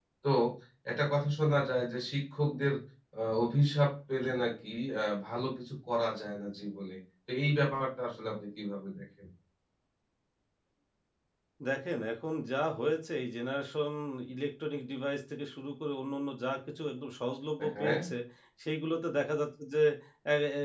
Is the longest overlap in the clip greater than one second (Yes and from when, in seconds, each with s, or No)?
No